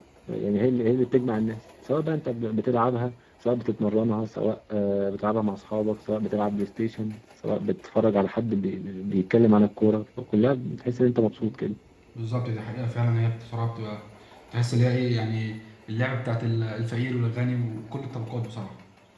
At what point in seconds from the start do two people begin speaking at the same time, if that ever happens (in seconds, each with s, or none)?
none